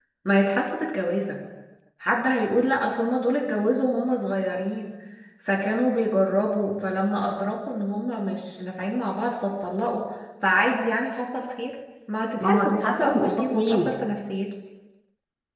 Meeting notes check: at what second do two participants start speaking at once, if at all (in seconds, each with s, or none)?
12.4 s